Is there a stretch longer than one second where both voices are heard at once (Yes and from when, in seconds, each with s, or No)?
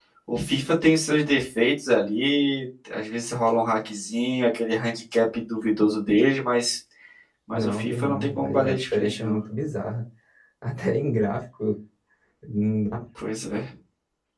Yes, from 7.5 s